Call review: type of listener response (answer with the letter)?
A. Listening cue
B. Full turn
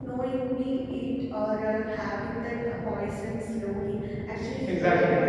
A